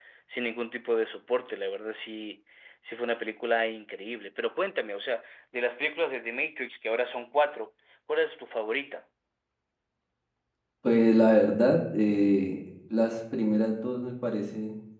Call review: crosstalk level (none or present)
none